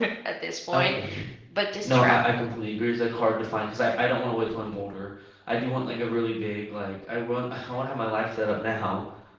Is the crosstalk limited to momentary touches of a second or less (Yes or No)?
Yes